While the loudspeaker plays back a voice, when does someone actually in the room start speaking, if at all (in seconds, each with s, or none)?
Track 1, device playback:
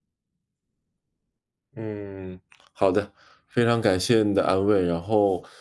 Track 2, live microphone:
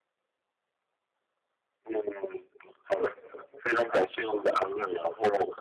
none